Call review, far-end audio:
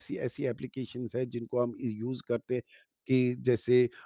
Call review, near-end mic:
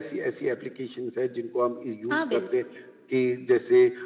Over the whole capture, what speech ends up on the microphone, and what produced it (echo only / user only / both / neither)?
both